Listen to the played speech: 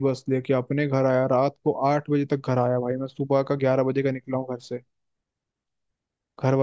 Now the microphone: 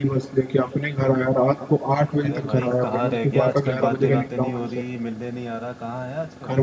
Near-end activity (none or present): present